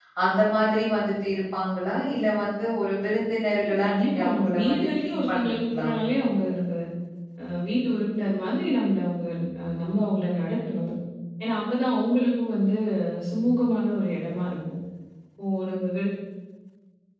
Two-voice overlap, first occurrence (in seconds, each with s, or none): 3.6 s